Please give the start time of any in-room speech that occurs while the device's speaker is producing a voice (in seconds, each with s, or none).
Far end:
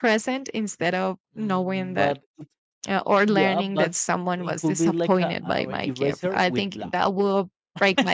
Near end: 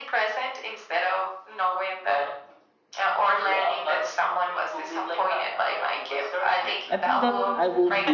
6.9 s